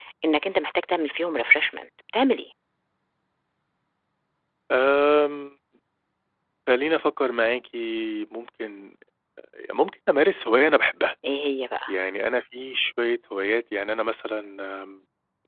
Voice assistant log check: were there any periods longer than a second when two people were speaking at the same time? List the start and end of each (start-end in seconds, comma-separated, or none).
none